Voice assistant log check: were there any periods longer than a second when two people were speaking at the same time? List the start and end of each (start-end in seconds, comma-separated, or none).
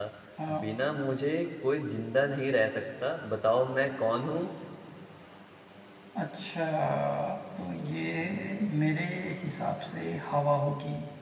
none